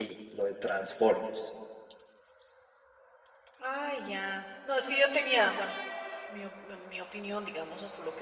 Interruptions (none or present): none